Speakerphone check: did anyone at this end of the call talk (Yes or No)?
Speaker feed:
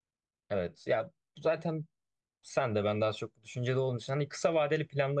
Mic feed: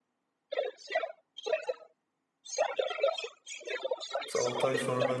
Yes